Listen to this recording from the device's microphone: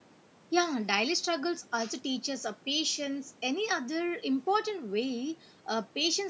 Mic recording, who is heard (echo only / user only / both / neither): user only